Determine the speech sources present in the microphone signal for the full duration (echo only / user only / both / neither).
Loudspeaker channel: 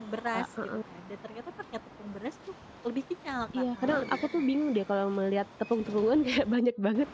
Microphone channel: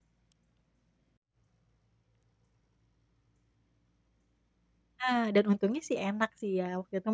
user only